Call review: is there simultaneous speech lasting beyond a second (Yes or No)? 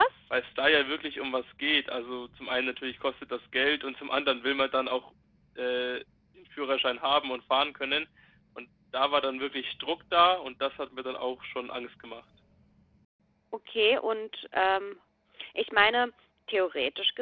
No